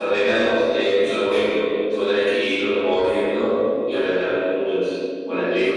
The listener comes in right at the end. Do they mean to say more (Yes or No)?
Yes